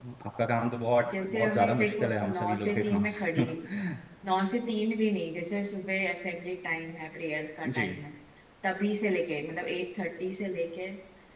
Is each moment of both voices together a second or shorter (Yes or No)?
No